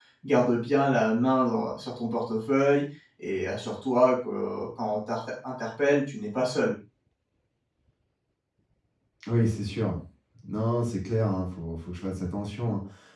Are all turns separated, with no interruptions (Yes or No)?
Yes